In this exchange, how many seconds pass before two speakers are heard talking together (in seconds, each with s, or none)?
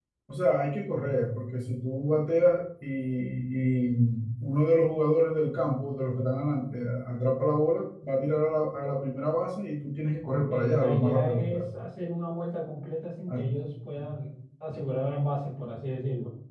10.2 s